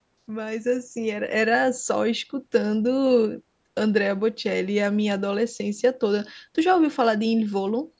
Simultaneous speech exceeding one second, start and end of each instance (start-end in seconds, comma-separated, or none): none